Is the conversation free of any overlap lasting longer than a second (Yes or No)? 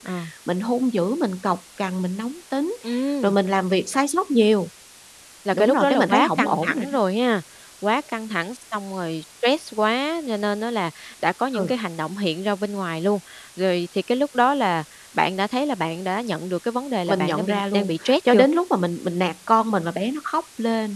No